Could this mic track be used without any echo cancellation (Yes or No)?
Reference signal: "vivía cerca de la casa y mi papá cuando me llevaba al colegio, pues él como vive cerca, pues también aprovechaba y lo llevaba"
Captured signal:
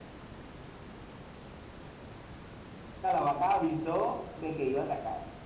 Yes